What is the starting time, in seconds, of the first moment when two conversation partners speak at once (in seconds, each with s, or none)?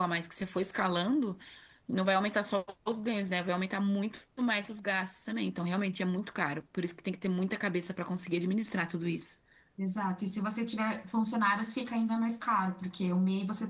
none